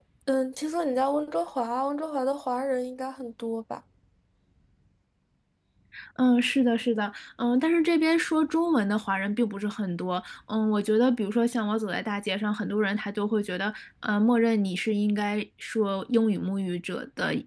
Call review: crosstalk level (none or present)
none